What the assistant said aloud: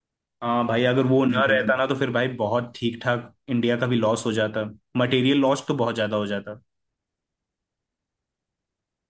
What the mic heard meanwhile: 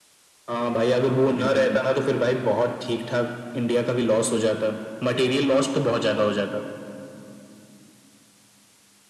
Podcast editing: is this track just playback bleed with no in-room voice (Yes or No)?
Yes